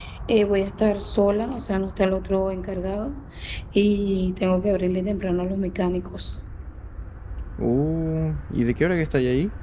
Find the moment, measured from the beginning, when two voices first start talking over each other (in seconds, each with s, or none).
none